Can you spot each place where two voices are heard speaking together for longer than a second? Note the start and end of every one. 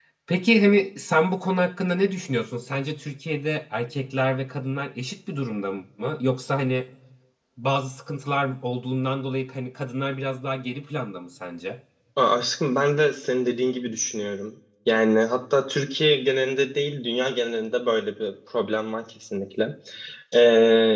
none

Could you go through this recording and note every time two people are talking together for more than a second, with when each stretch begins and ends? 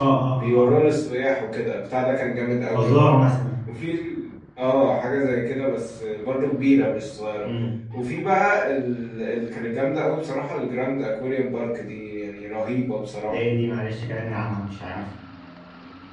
none

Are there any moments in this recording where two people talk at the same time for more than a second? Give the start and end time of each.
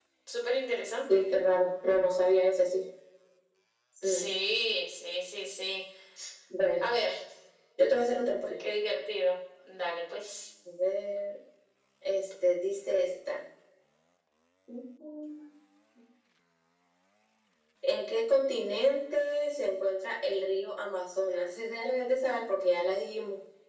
none

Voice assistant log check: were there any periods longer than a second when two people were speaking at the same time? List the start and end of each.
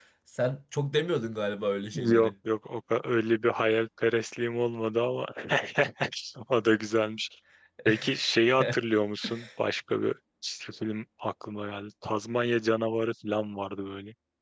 none

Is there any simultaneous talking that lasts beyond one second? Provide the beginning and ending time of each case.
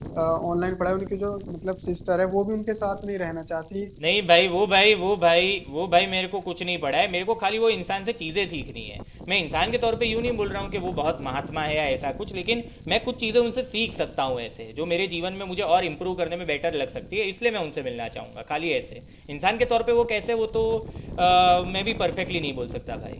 none

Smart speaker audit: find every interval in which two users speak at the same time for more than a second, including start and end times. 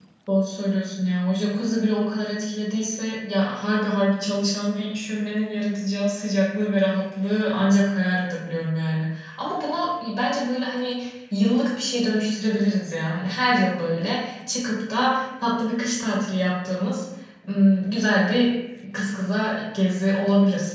none

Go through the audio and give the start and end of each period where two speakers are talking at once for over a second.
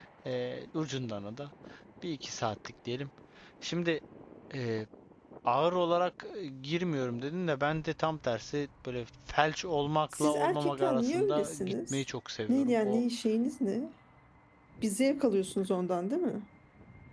10.1-12.0

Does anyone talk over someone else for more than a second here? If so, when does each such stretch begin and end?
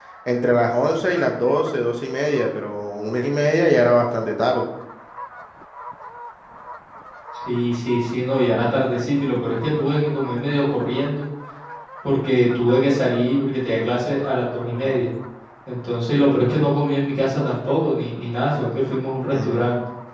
none

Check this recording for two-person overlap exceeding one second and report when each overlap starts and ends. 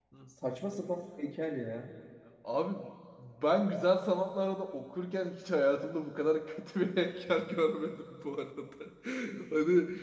none

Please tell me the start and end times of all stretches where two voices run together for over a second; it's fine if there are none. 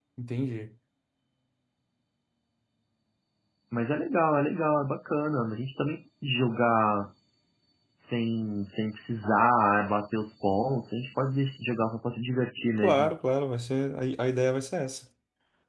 none

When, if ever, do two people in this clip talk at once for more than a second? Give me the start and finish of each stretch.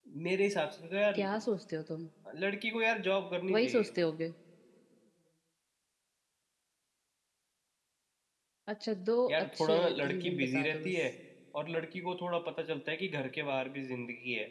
9.3-11.0

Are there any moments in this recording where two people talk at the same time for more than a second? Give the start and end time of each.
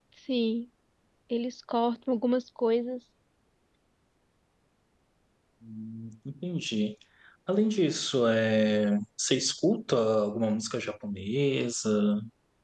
none

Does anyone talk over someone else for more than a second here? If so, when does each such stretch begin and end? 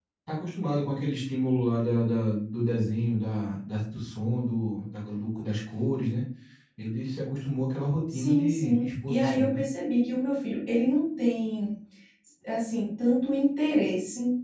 8.1-9.6

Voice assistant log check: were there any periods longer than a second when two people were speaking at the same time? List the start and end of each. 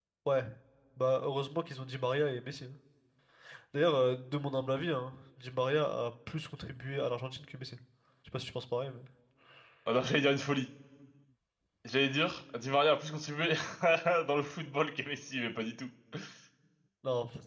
none

